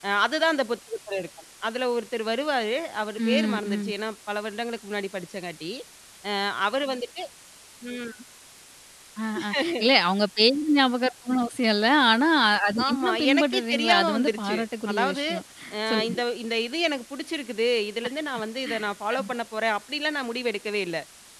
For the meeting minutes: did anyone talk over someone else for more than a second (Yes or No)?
Yes